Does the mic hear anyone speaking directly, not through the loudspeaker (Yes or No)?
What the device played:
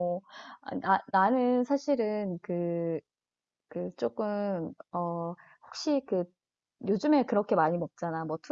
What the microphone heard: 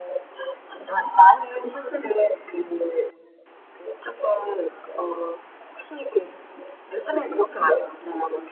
No